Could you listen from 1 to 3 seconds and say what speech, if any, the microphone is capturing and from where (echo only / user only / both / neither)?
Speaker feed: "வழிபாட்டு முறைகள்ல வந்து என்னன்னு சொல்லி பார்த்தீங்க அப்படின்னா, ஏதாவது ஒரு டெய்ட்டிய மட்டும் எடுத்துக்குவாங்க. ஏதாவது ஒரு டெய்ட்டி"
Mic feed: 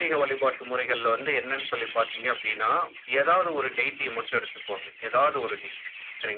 echo only